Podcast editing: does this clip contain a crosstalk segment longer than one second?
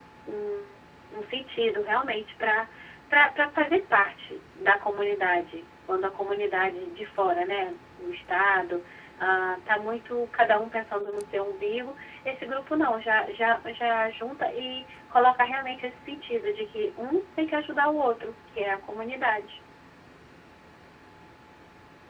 No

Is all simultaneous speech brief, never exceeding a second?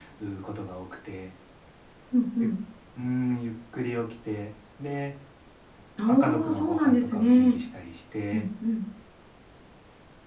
No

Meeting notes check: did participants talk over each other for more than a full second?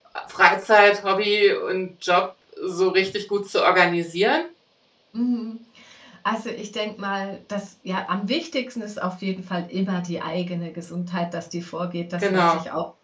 No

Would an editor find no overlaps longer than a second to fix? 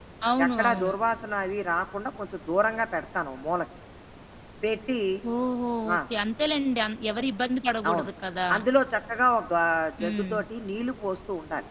Yes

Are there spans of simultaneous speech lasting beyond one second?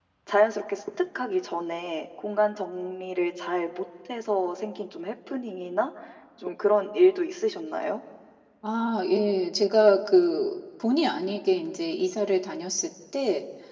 No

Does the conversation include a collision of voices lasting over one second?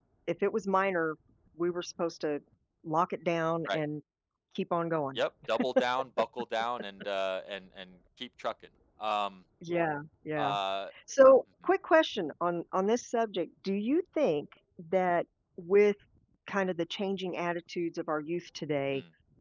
No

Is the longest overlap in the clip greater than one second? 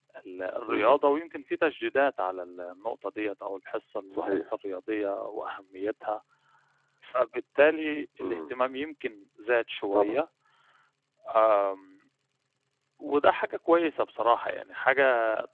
No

